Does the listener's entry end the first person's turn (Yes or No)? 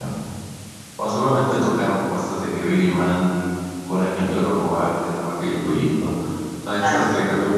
No